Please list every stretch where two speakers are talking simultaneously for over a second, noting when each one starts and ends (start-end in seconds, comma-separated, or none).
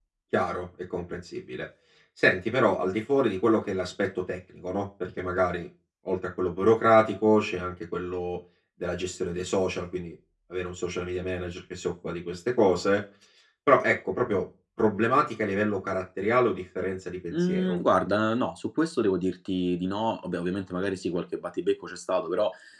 none